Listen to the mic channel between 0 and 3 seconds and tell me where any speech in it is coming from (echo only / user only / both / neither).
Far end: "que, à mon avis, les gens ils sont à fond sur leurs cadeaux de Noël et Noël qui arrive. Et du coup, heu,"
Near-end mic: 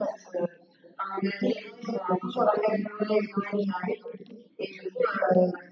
echo only